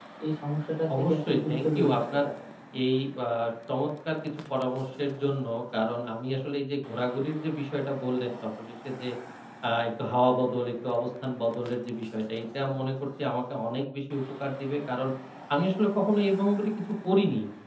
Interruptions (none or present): present